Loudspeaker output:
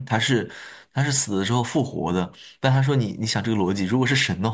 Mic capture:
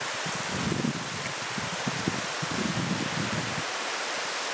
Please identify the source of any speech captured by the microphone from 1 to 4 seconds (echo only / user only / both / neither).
neither